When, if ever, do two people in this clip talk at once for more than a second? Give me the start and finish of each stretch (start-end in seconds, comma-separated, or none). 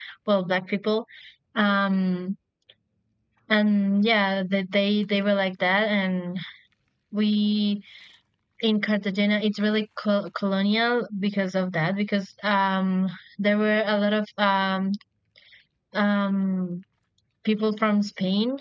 none